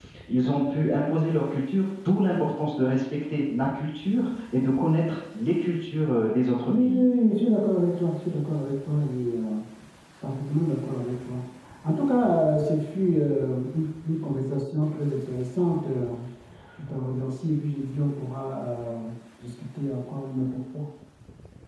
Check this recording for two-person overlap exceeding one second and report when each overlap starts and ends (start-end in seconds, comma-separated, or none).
none